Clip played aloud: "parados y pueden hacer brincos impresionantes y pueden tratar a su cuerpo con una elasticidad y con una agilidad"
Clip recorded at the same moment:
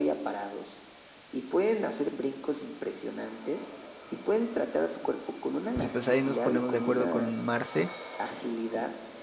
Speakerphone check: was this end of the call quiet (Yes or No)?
No